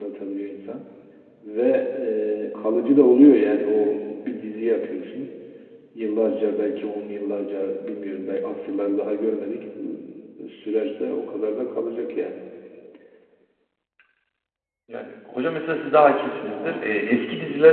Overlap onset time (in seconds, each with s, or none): none